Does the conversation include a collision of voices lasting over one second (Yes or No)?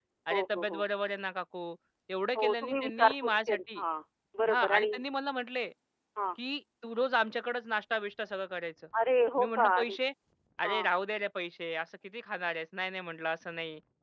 Yes